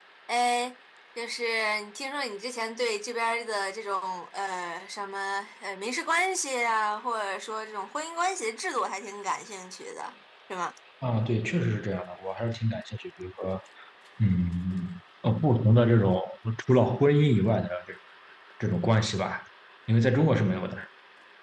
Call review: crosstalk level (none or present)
none